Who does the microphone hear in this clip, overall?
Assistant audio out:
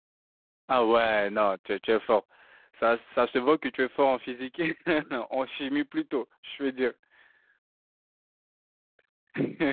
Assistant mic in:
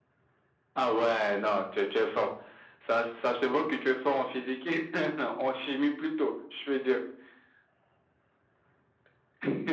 echo only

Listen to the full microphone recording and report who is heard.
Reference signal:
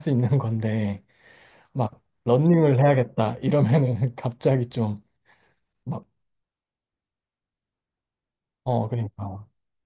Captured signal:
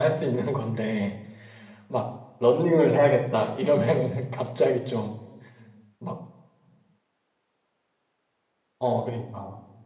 echo only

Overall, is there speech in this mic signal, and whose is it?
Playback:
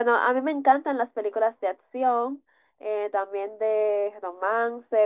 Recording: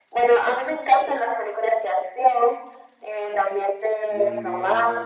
both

